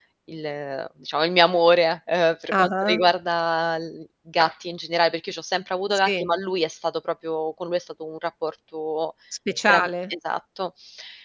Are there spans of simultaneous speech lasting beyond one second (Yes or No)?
No